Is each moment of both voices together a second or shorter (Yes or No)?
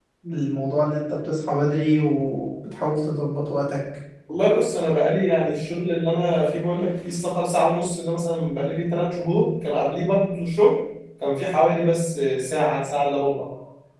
Yes